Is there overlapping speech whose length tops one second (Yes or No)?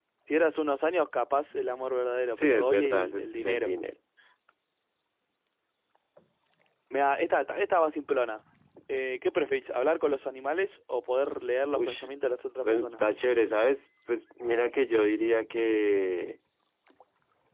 Yes